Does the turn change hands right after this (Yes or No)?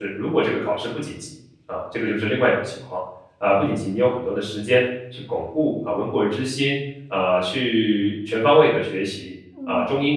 No